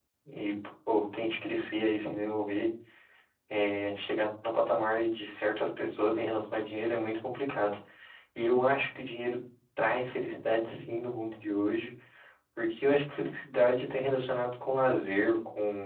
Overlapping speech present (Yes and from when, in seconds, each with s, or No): No